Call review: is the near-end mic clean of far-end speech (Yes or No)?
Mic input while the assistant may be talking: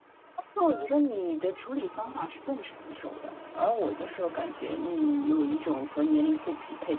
No